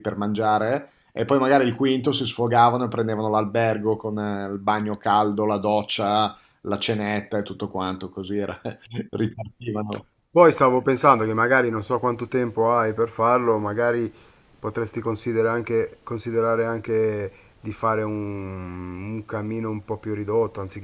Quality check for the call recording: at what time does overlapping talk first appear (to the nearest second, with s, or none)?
none